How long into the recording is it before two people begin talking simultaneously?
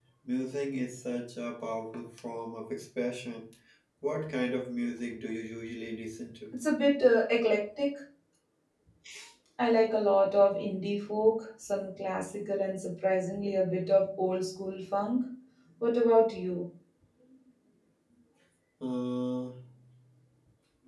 none

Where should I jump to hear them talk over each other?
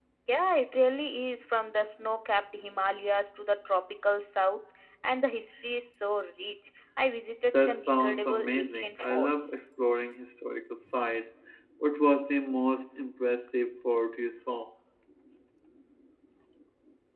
7.5 s

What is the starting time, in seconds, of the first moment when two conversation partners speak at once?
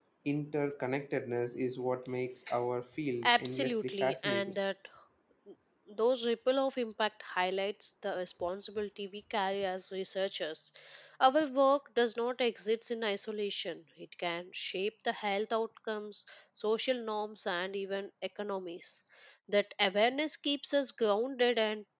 3.2 s

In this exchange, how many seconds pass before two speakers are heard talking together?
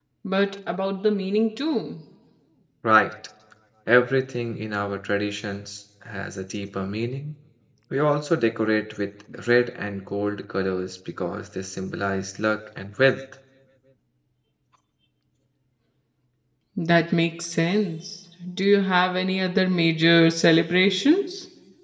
none

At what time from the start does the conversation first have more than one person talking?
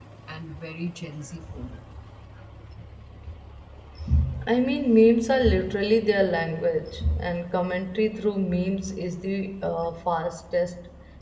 none

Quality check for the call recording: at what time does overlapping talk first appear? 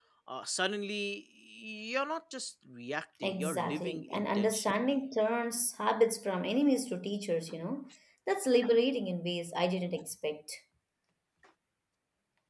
3.2 s

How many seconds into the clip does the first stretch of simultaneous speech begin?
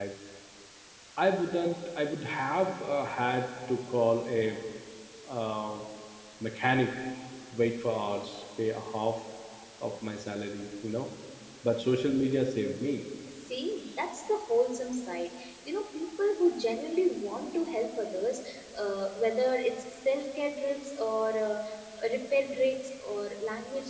none

